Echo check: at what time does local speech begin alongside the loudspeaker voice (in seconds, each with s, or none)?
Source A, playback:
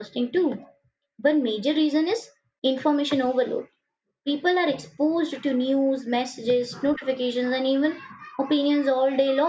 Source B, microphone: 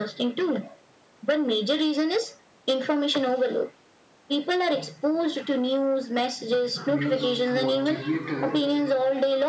6.8 s